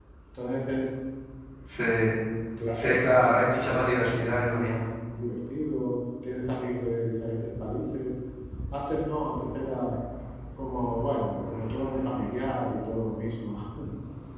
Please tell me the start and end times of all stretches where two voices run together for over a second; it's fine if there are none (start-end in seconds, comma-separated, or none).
2.7-4.8